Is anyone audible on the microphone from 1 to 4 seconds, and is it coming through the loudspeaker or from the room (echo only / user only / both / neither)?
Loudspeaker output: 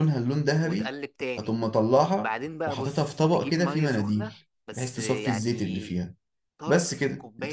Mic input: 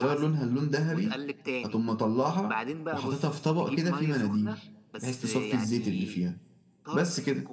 echo only